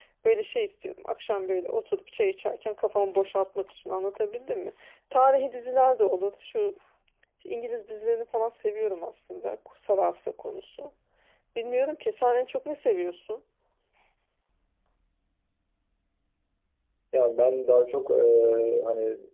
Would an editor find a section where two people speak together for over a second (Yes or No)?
No